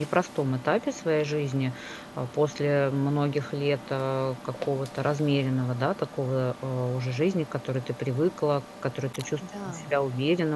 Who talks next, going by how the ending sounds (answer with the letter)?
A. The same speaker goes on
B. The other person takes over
A